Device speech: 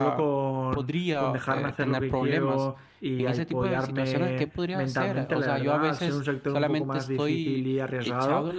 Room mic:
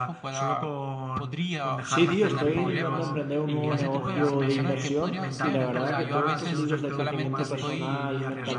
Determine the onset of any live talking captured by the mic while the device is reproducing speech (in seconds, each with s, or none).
1.8 s